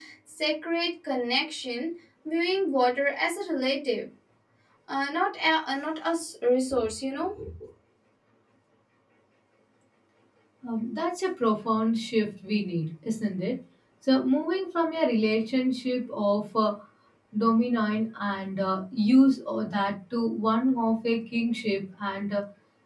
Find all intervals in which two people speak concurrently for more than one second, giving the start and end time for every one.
none

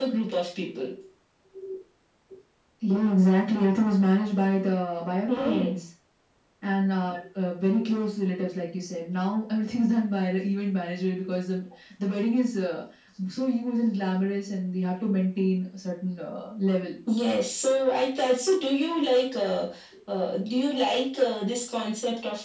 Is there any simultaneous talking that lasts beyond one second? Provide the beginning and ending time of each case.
none

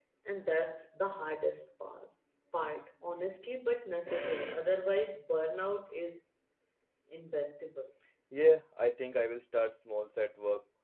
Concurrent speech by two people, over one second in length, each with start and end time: none

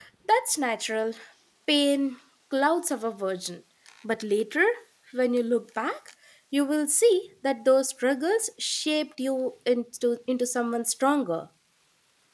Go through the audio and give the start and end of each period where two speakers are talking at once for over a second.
none

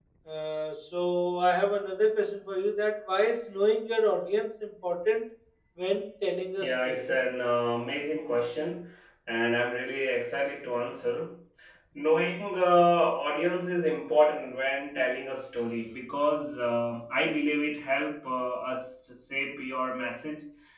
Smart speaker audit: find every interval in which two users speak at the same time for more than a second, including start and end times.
none

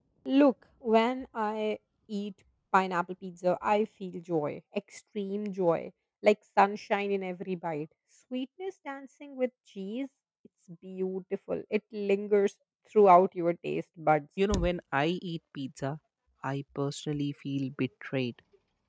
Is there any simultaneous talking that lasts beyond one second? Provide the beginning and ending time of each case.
none

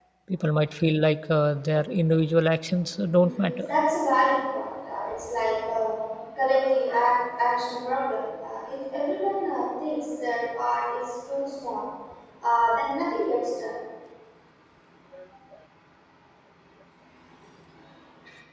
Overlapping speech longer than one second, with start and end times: none

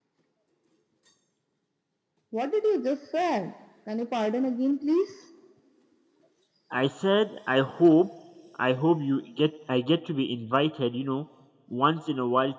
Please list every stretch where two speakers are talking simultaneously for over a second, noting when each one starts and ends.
none

